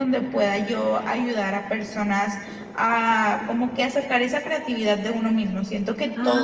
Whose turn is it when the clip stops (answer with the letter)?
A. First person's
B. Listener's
A